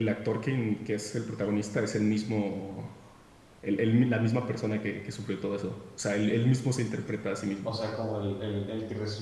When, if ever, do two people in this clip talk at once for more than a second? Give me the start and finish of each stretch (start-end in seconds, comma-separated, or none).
none